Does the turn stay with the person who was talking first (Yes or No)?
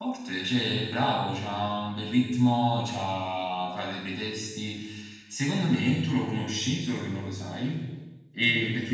Yes